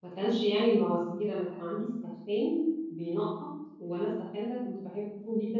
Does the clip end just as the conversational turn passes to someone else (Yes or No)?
No